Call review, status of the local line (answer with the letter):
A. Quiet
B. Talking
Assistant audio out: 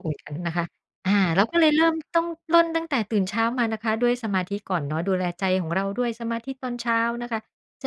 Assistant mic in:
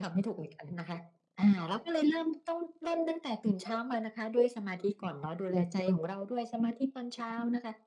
A